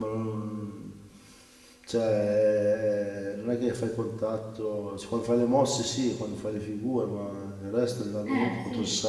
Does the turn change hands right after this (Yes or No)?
No